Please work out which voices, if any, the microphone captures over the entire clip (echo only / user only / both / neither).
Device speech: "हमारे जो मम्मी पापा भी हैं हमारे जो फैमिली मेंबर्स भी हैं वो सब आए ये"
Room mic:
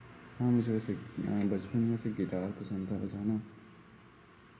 user only